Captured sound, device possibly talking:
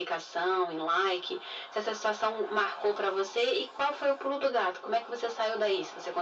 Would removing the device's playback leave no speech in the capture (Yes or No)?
Yes